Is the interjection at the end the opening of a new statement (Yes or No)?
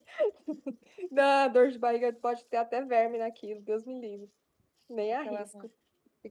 Yes